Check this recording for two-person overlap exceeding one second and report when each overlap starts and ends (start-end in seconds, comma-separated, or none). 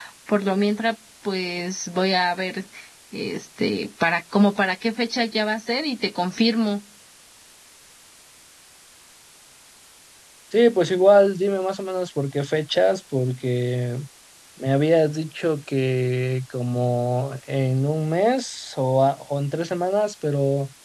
none